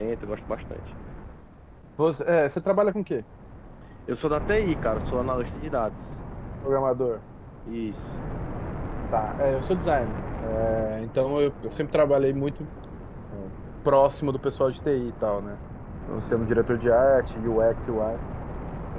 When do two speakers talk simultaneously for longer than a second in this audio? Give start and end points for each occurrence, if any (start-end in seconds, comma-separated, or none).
none